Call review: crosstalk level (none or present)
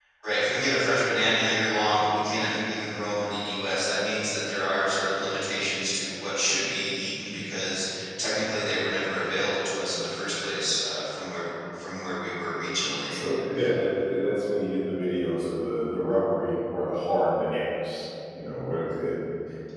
none